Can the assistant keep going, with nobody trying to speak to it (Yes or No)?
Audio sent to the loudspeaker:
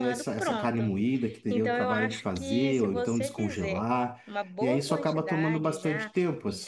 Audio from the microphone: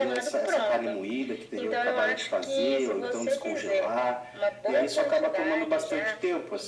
Yes